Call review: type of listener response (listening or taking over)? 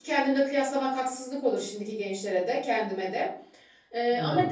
listening